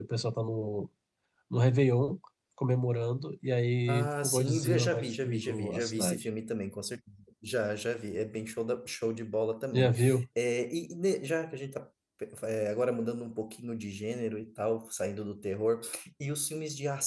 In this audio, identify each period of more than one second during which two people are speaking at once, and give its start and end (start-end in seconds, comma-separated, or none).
3.9-6.2